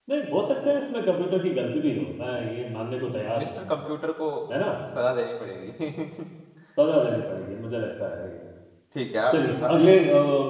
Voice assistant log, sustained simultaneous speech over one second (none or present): none